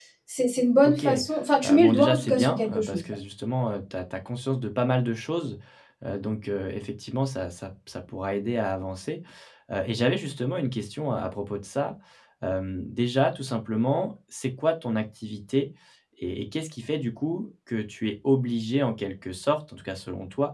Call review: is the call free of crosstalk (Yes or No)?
No